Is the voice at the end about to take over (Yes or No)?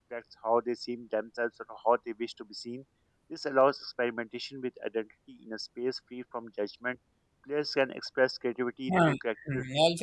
Yes